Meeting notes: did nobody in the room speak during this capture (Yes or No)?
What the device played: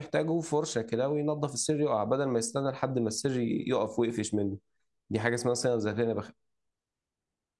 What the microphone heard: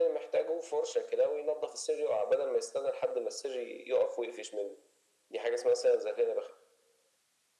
Yes